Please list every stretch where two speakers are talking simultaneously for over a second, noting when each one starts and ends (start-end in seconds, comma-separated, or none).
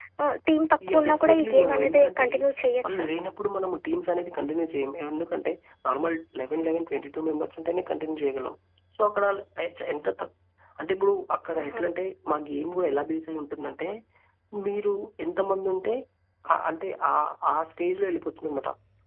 0.9-2.2